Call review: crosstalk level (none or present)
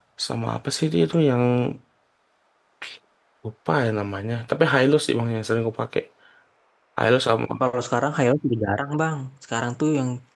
none